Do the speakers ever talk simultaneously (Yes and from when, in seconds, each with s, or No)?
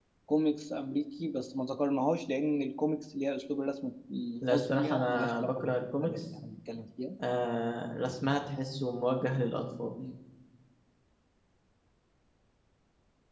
Yes, from 4.4 s